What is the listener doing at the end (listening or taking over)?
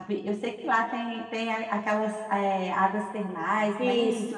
taking over